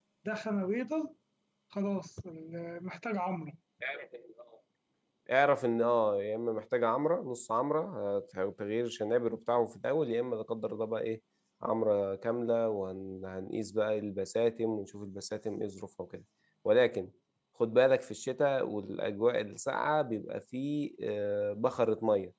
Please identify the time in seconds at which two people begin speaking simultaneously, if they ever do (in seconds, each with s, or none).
none